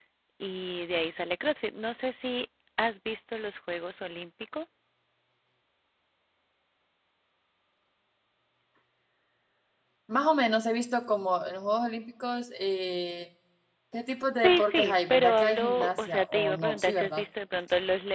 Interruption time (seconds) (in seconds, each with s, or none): 14.4 s